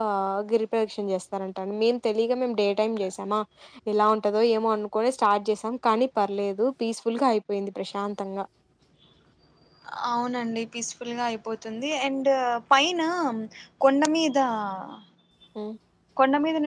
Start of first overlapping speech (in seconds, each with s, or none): none